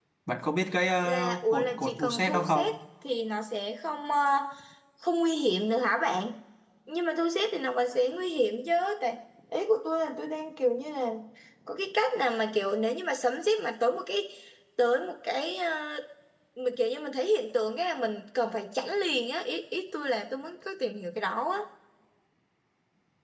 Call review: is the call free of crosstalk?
No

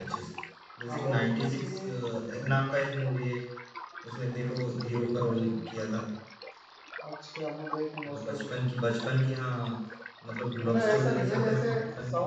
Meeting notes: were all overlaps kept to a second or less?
No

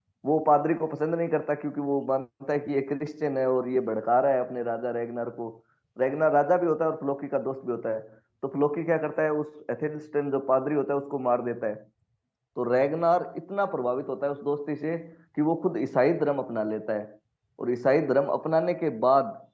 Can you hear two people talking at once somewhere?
No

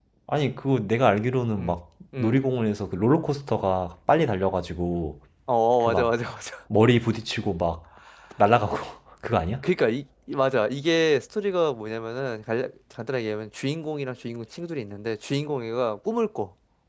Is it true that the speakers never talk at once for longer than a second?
Yes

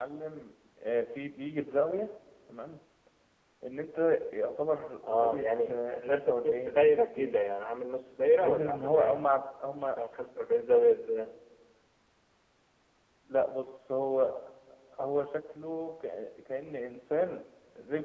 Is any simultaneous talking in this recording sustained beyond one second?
Yes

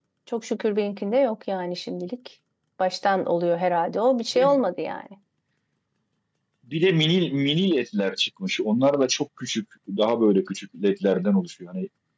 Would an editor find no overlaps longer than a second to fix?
Yes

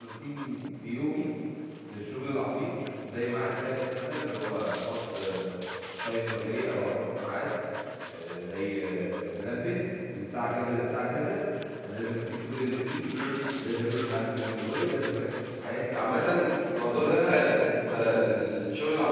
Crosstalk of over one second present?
Yes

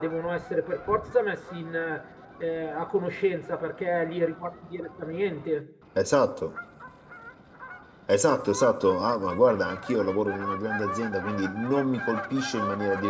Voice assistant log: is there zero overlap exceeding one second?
Yes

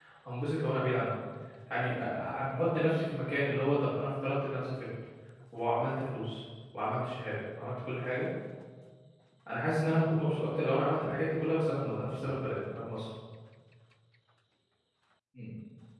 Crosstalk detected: No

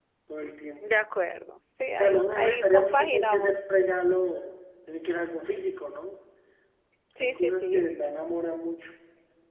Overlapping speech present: Yes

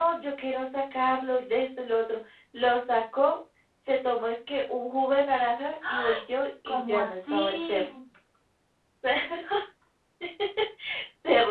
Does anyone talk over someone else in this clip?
Yes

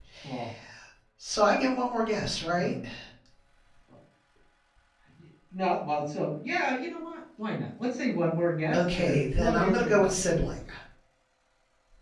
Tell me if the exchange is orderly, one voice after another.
No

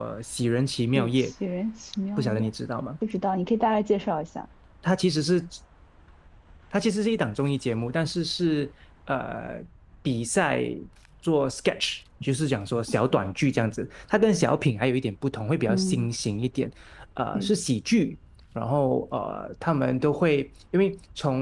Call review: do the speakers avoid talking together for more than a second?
Yes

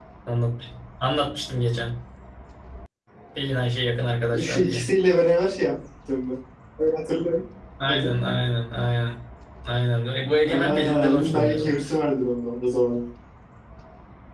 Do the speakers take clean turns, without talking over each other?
No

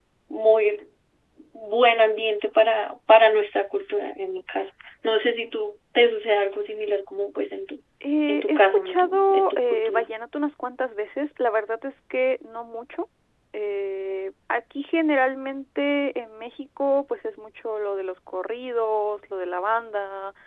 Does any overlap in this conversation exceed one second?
Yes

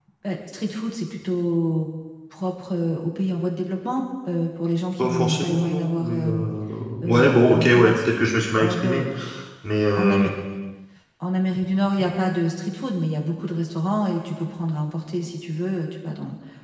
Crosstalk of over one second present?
Yes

